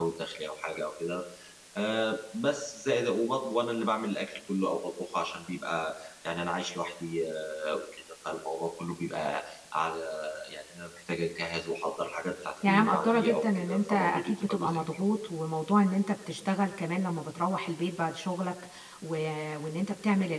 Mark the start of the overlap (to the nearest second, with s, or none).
13 s